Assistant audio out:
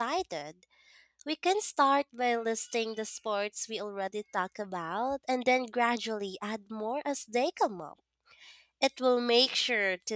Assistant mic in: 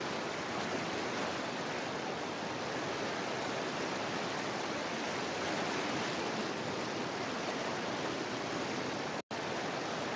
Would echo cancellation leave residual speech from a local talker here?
No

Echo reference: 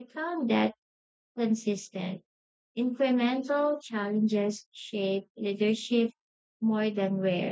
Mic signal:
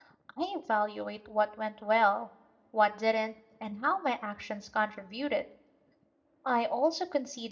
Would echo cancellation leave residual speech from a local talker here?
Yes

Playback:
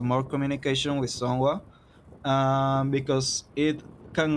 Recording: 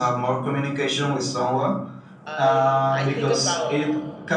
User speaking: Yes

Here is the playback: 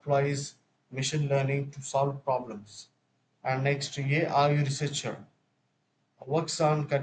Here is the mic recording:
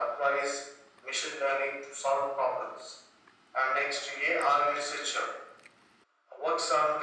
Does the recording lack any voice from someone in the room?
Yes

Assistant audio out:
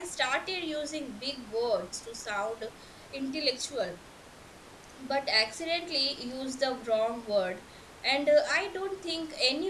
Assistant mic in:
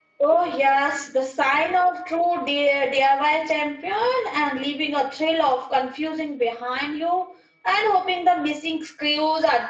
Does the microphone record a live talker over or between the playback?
Yes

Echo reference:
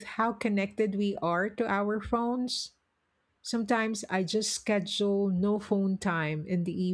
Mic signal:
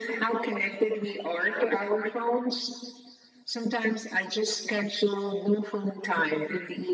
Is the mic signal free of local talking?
Yes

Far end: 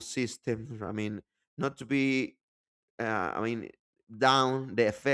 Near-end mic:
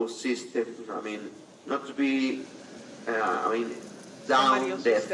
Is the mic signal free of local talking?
No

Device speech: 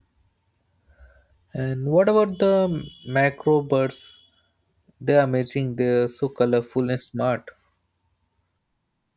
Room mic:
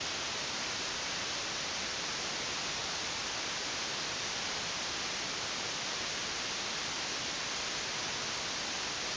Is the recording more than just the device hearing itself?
No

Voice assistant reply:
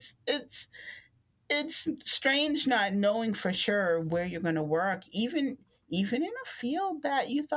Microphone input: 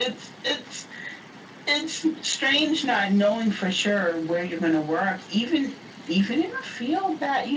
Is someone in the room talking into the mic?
No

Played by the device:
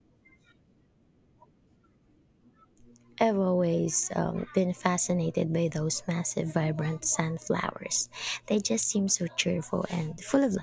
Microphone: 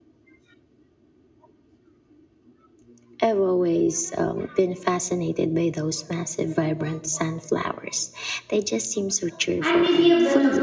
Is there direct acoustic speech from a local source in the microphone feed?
Yes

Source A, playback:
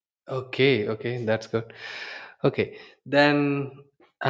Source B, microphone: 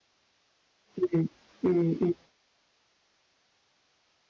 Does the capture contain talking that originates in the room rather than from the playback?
Yes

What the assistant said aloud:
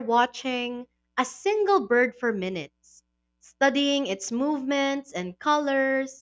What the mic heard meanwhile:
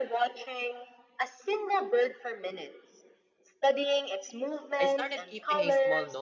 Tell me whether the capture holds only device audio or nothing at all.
No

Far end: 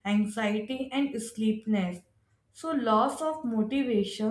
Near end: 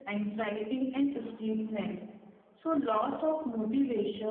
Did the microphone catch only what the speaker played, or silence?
Yes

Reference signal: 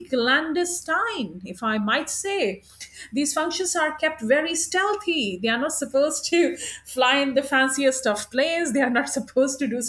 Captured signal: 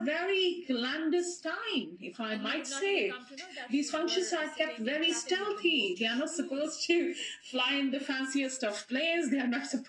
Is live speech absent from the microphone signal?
No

